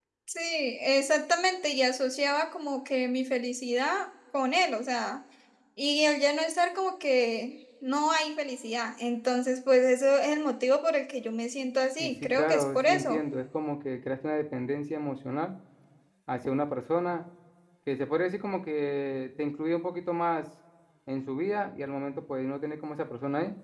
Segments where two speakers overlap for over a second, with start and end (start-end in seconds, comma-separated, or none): 12.0-13.2